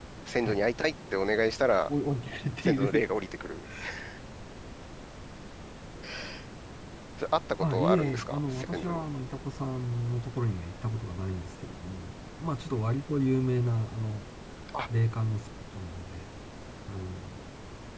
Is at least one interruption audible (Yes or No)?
Yes